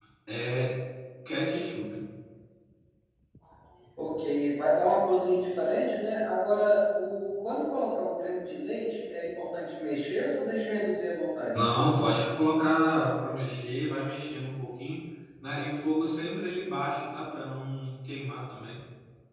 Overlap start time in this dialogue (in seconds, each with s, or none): none